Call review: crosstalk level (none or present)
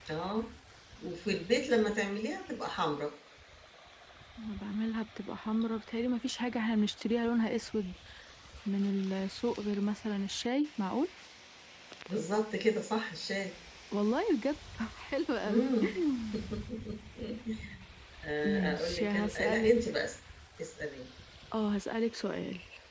present